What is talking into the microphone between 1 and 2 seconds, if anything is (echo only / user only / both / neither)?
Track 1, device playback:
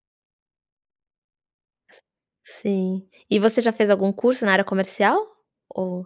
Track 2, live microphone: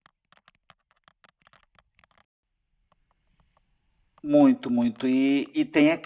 neither